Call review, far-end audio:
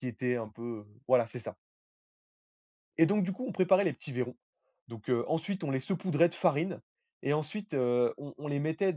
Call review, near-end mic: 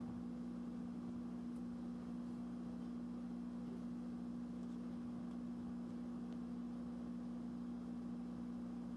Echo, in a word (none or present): none